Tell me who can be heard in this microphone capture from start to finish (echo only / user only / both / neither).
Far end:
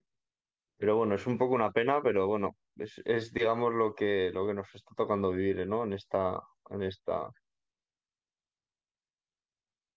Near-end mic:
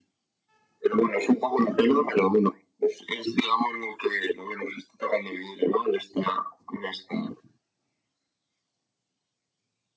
both